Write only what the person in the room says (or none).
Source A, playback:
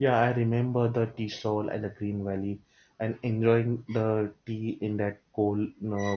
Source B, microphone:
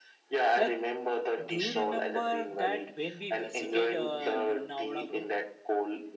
like. Do you remember that when we visited uh, Lonavala, bro?